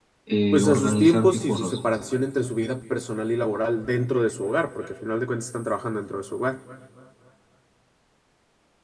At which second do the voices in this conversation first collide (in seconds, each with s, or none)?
0.5 s